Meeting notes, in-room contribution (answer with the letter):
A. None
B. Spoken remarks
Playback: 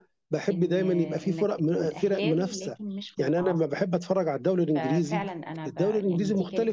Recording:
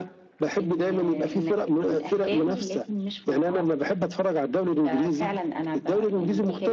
A